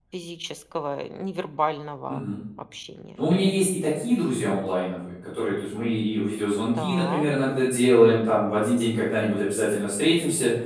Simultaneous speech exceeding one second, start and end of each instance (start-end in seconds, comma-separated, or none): none